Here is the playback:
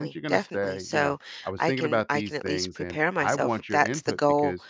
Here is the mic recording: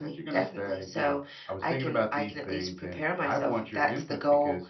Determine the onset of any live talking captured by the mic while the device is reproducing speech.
none

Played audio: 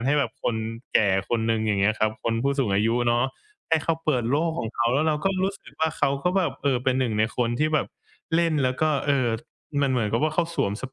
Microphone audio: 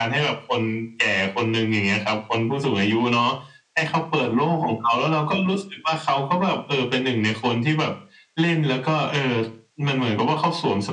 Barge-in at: none

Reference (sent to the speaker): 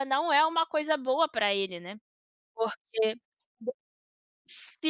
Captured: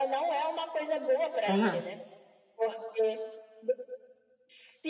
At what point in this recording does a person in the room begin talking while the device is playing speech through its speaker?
1.4 s

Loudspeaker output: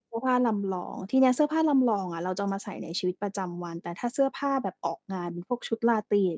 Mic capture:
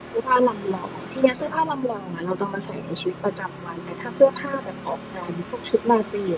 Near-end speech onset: none

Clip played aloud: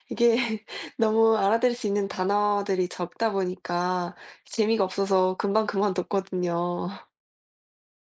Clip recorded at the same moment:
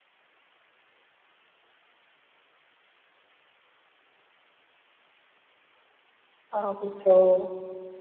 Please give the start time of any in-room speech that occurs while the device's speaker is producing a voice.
6.5 s

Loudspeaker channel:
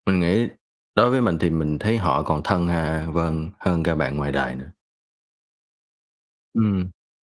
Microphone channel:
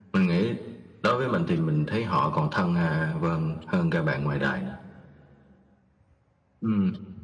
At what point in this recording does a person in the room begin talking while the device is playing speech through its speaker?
none

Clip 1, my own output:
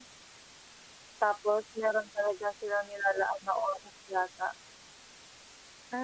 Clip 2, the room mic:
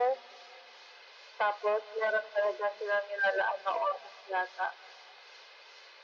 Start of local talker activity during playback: none

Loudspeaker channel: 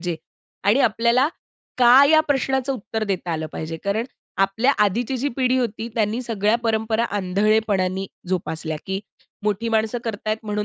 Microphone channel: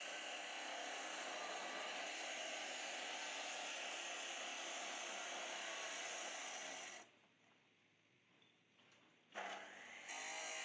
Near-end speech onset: none

